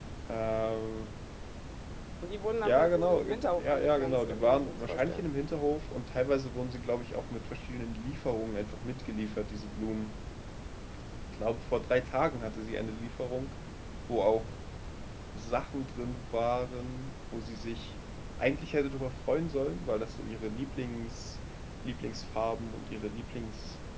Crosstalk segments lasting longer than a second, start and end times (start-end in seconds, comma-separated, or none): 2.6-5.2